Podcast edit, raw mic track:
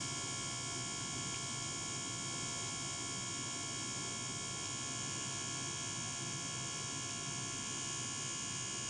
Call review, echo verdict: none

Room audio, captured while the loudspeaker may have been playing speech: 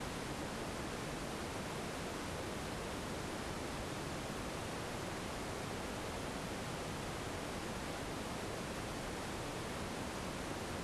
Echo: none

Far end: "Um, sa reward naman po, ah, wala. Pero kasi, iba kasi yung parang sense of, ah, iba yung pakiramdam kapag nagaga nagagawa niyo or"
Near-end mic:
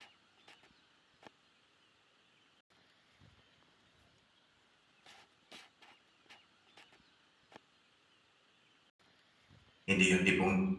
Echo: none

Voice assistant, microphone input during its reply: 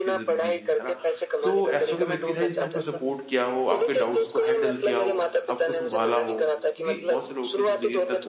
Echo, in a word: present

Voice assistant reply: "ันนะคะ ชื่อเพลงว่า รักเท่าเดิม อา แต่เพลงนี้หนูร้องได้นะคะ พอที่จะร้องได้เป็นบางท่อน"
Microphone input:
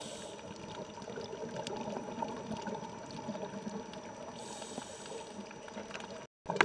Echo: none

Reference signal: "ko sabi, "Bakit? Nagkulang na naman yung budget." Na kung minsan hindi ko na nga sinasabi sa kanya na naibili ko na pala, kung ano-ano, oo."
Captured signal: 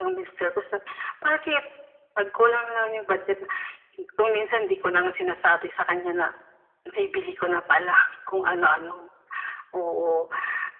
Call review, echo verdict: present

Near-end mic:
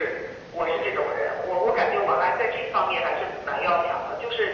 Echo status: present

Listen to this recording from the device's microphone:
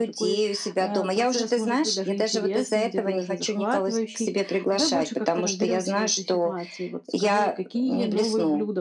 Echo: present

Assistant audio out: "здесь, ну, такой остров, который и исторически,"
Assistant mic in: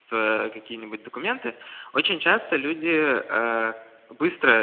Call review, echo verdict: none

